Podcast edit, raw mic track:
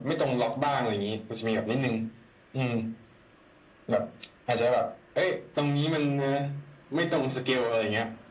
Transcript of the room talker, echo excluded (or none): none